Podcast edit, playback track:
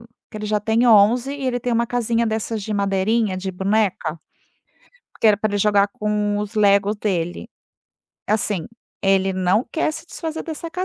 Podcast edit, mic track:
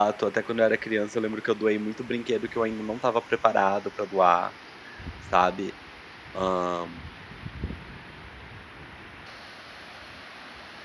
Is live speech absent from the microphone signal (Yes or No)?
No